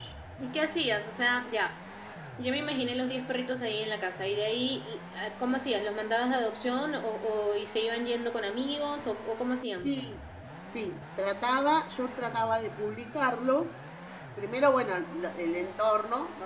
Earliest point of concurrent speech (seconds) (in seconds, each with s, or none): none